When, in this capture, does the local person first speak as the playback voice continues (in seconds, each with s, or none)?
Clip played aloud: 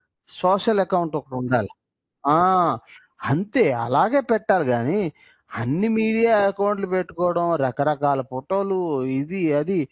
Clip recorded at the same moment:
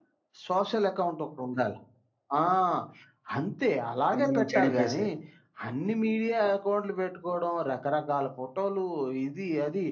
4.1 s